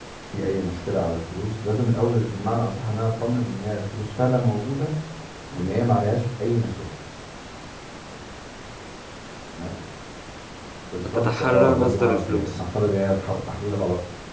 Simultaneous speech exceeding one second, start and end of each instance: 11.0-12.6

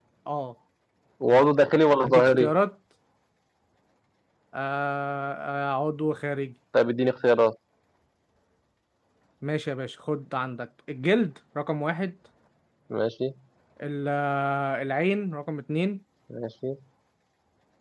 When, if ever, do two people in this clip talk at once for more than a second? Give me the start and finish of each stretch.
none

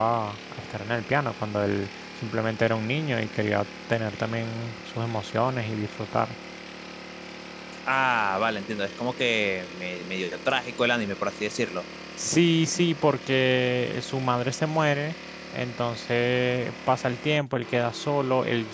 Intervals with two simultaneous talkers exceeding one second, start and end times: none

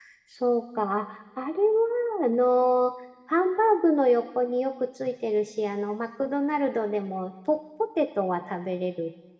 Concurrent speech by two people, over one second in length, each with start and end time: none

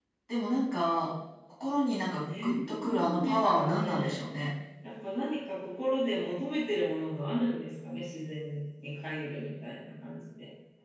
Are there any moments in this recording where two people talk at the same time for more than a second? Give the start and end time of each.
2.4-4.2

